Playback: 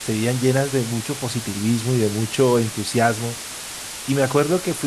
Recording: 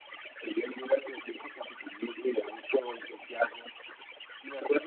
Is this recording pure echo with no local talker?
Yes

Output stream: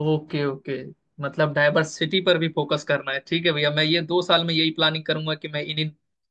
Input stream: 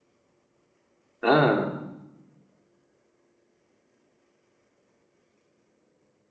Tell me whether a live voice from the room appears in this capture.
Yes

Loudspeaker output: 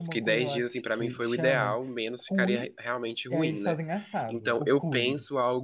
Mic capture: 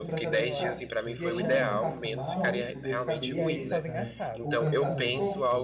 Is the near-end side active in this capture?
Yes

